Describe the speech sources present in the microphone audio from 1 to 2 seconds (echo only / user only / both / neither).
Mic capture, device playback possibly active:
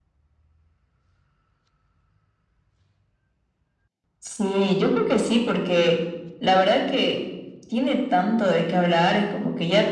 neither